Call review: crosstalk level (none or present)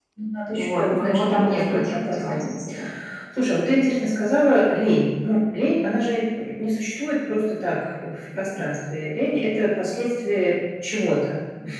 present